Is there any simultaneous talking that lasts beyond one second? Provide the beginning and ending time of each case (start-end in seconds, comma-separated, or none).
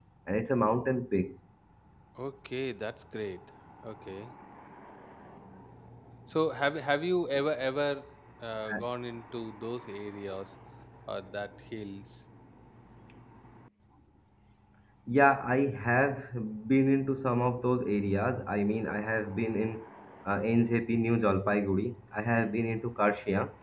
none